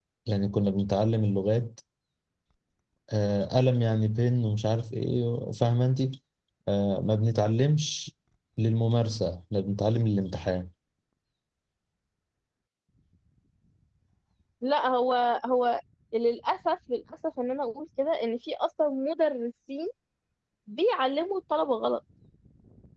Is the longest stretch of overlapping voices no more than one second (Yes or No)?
Yes